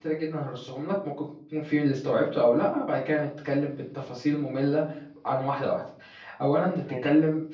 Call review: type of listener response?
listening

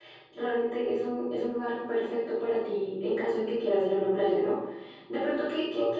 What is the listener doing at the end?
listening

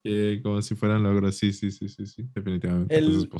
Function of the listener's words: taking over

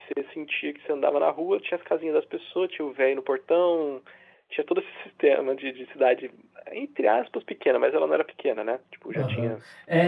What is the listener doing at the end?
taking over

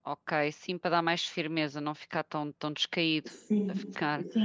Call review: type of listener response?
taking over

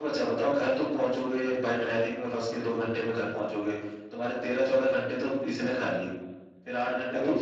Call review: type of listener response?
listening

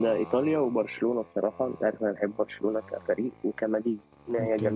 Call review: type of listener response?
taking over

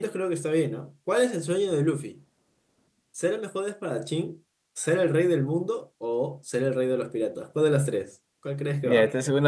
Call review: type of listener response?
taking over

